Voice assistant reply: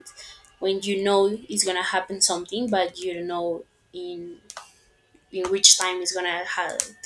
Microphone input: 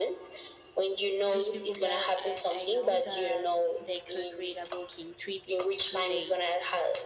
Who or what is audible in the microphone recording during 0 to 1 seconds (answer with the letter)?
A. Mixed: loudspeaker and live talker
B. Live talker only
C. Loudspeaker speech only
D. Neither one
C